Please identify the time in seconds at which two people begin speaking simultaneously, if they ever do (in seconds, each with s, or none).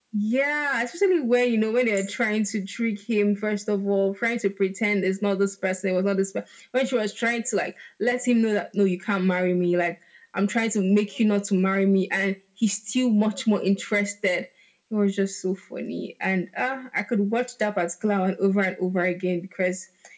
none